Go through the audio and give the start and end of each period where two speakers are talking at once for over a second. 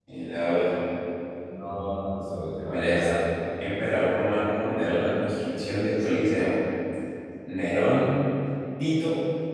none

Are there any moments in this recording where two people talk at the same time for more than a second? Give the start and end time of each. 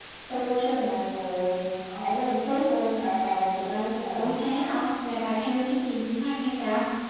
none

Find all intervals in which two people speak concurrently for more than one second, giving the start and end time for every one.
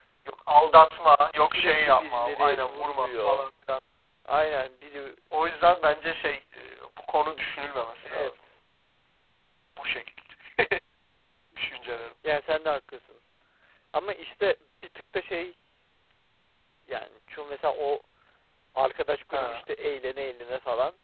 1.5-3.4

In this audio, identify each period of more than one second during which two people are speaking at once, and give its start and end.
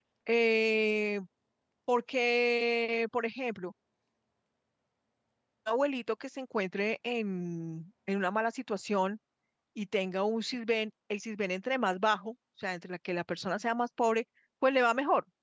none

